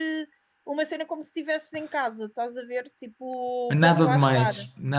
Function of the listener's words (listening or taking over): taking over